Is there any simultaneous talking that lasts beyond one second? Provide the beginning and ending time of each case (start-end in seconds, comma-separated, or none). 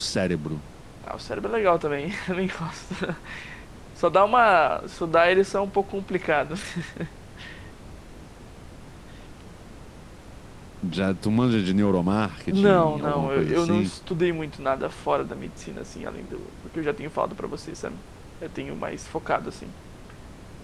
12.5-13.9